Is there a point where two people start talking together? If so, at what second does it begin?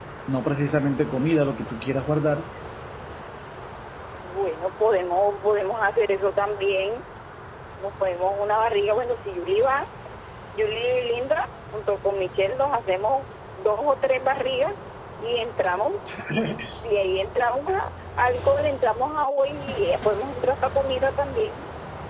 none

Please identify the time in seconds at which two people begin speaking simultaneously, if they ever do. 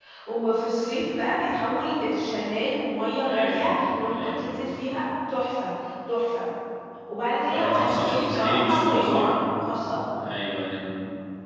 3.2 s

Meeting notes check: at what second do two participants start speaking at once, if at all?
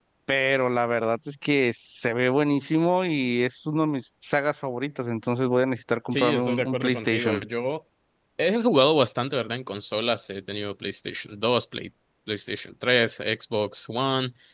6.1 s

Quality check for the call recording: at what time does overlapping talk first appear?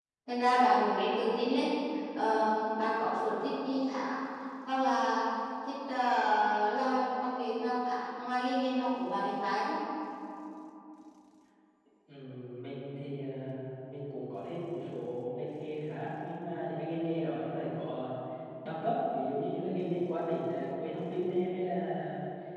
none

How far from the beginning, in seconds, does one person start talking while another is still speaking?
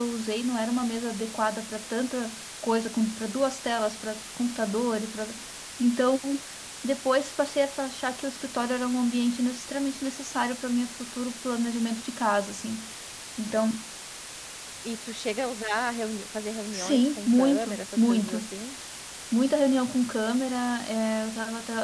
16.7 s

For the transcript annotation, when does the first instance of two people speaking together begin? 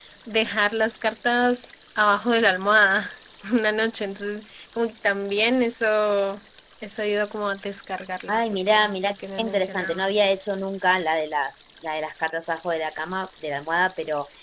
8.3 s

